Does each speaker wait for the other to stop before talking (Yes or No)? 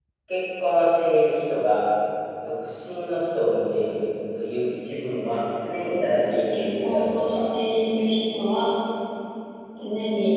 No